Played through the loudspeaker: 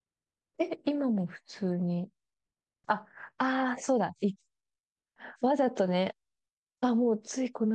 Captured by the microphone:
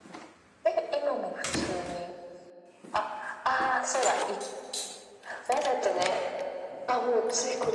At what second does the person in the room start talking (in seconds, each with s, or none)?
none